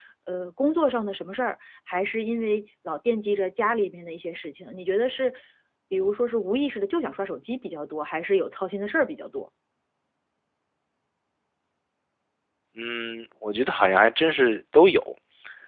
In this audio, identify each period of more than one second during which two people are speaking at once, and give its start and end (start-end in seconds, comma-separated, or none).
none